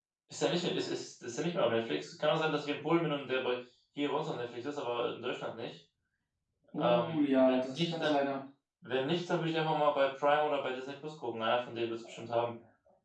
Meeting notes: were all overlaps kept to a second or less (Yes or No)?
No